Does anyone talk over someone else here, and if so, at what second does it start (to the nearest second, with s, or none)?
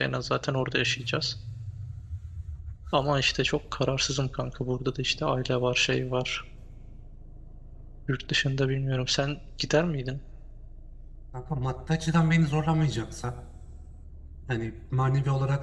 none